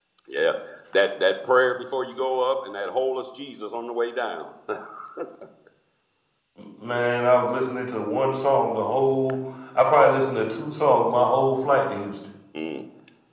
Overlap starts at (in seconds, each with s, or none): none